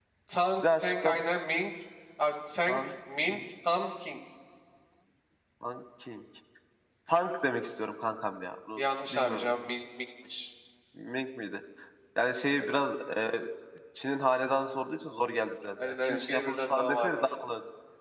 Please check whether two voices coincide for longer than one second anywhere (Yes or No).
Yes